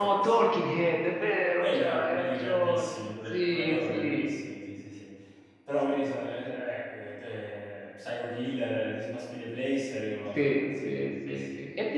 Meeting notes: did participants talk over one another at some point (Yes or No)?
Yes